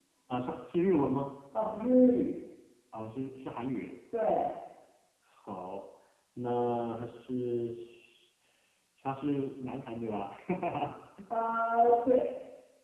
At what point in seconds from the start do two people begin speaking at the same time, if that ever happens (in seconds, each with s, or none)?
none